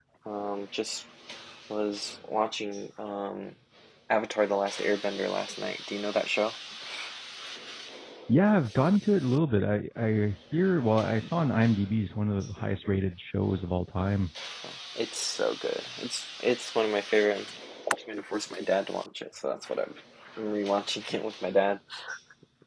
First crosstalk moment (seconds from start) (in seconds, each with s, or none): none